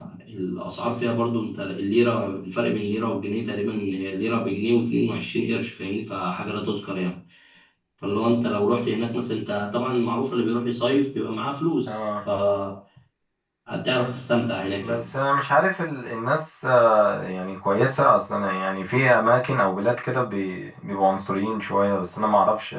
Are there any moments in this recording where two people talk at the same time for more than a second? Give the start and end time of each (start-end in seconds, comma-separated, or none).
none